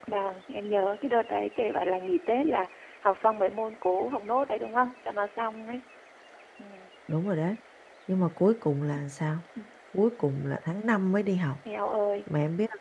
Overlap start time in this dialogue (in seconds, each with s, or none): none